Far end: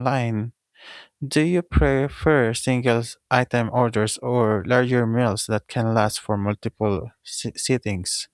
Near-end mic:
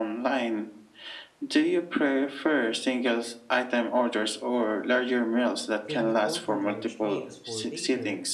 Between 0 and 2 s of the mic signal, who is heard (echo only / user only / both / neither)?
echo only